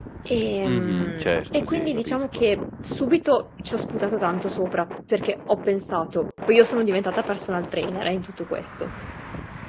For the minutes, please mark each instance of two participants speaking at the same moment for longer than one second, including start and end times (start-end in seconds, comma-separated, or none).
0.6-2.2